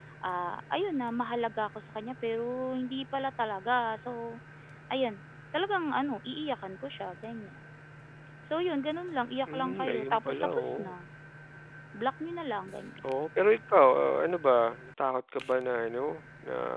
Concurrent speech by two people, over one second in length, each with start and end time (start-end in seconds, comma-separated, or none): 9.5-11.0